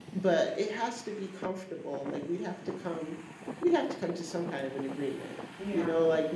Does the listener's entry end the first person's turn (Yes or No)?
No